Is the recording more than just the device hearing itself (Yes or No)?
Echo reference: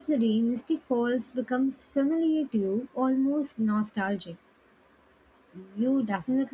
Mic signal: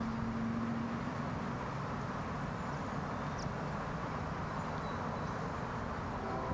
No